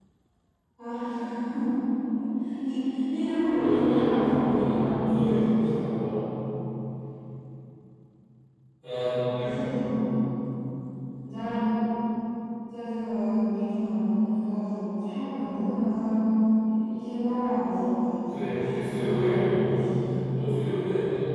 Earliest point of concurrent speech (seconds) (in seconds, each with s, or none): 3.5 s